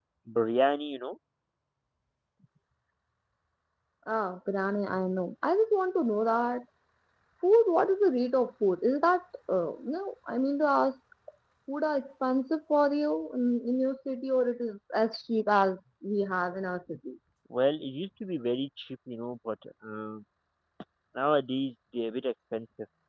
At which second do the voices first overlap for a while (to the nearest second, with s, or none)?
none